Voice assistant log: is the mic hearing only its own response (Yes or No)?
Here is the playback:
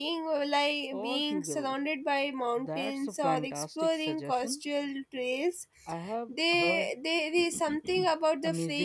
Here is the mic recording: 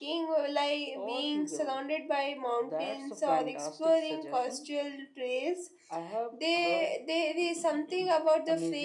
Yes